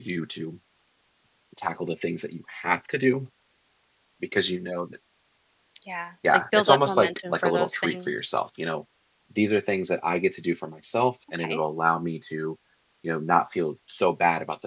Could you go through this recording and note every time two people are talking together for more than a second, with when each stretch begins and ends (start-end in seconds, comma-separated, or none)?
6.5-8.3